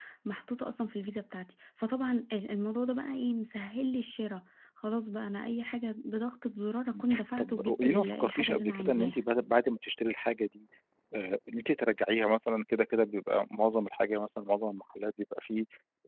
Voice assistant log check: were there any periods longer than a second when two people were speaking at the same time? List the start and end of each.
6.9-9.2

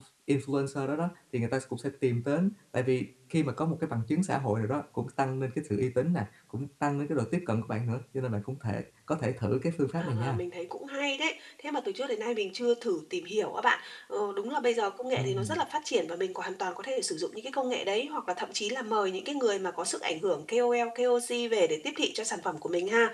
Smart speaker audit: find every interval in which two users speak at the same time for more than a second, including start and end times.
none

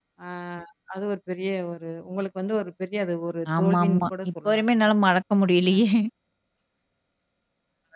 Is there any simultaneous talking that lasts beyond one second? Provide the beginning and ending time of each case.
3.6-4.8

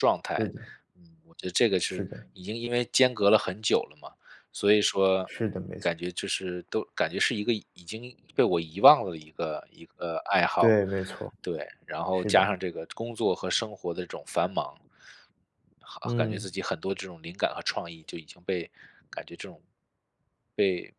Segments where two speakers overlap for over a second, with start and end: none

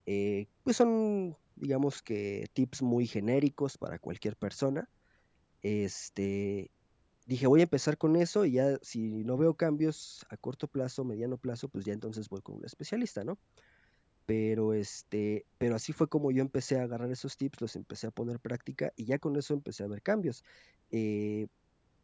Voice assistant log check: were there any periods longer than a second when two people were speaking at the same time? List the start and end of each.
none

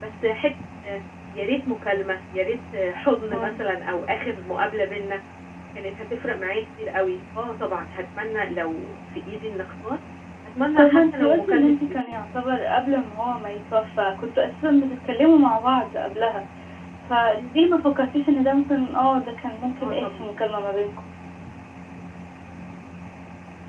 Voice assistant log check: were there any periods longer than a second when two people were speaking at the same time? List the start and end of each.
10.8-12.2

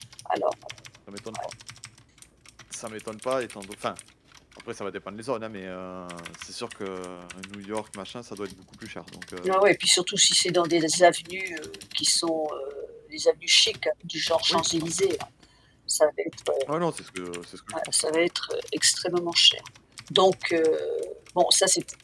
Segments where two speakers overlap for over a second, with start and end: none

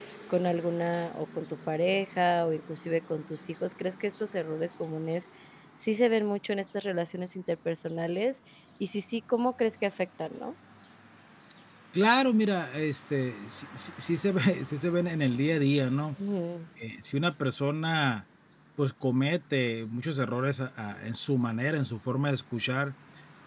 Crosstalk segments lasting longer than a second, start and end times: none

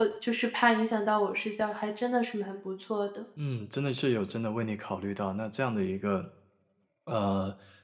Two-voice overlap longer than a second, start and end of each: none

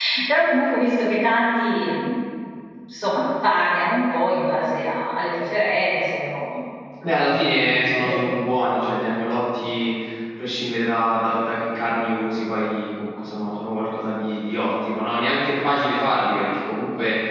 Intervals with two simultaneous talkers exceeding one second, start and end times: none

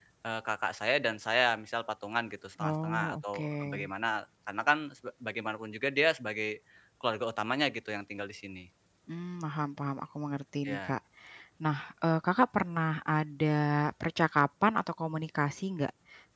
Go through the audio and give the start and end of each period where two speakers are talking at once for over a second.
2.6-3.9

